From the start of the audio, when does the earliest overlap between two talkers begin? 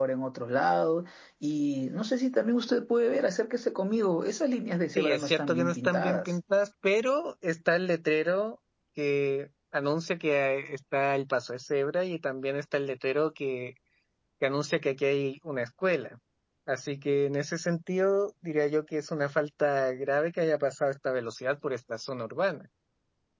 5.0 s

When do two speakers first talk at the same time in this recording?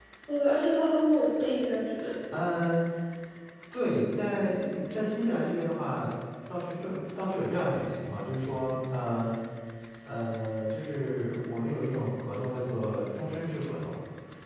none

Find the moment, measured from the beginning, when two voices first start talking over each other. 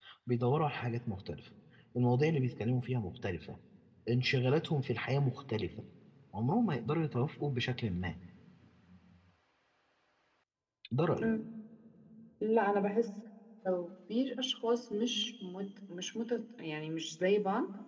none

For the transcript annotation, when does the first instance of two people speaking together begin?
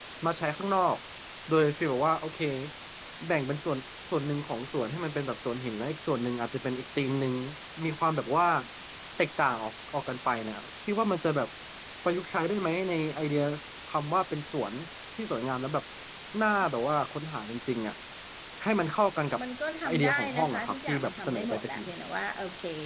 19.9 s

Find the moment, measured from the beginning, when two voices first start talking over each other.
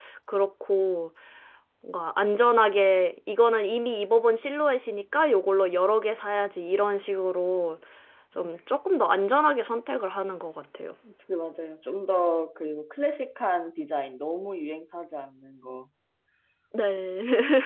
none

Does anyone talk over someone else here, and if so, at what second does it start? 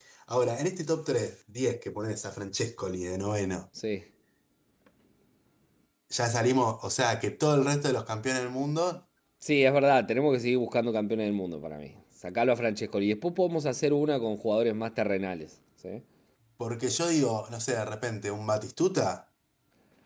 none

